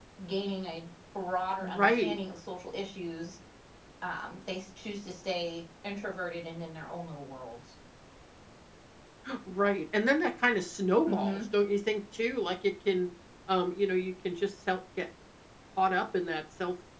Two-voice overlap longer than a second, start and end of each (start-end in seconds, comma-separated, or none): none